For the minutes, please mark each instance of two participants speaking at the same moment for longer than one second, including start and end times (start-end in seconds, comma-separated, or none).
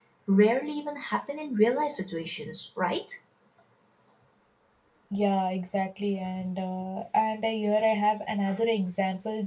none